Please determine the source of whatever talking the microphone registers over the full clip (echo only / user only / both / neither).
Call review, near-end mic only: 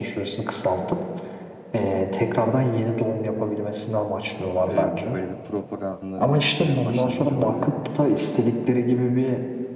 both